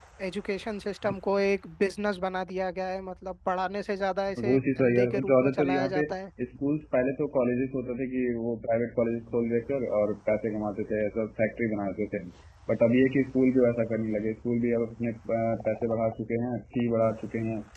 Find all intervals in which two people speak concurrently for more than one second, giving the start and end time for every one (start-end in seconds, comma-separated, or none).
4.4-6.0